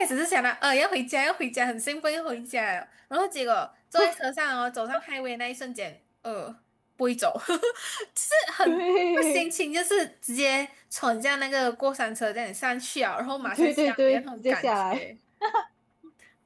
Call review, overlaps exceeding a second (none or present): present